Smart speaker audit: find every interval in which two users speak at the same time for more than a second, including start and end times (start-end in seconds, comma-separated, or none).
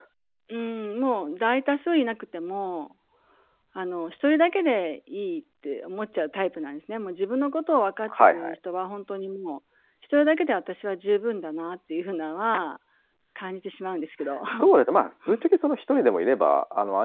none